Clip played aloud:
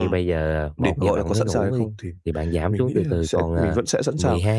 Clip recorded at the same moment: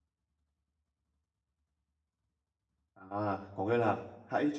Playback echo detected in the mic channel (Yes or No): No